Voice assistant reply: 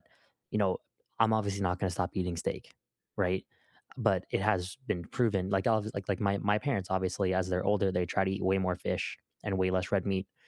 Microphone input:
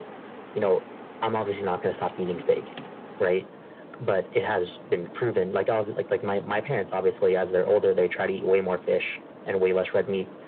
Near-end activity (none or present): none